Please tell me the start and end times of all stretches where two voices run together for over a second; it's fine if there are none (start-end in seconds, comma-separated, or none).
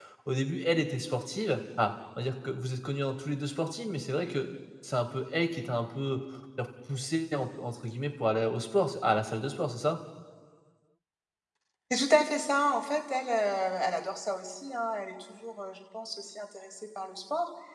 none